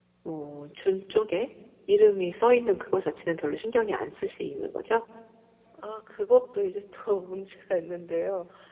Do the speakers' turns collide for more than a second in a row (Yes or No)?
No